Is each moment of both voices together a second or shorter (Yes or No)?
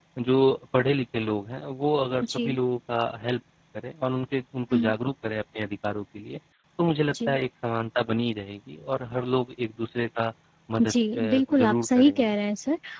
No